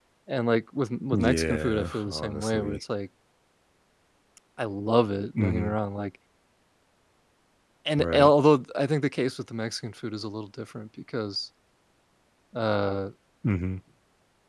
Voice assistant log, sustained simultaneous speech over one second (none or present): present